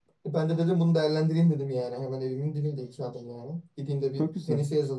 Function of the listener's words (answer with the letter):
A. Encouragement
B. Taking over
A